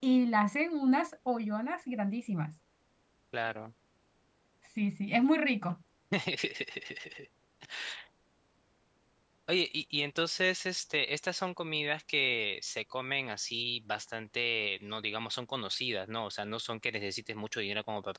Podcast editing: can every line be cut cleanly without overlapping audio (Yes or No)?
Yes